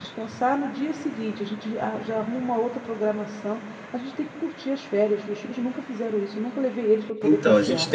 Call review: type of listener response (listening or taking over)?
taking over